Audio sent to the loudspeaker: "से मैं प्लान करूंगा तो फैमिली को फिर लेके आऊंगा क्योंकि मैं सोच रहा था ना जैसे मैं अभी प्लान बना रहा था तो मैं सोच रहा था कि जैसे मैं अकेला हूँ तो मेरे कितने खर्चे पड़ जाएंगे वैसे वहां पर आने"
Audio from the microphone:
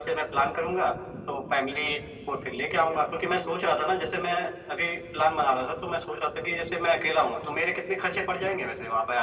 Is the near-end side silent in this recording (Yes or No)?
Yes